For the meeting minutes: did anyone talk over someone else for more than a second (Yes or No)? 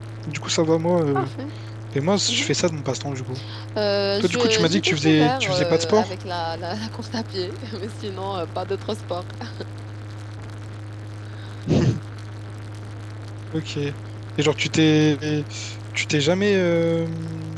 Yes